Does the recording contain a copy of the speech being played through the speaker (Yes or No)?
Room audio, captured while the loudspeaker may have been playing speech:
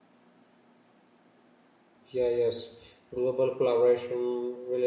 No